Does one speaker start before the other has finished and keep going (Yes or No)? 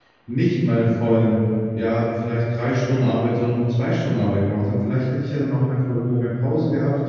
No